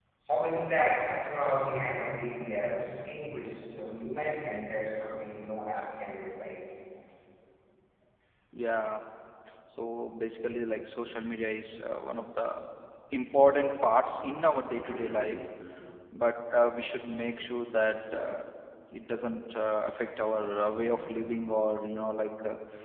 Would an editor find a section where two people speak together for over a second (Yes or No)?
No